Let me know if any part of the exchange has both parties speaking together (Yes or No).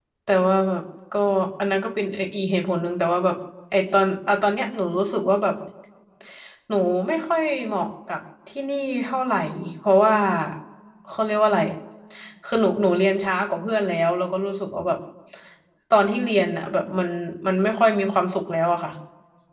No